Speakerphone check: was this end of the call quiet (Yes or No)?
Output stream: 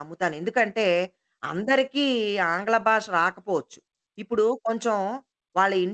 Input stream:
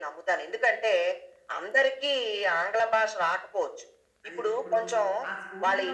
No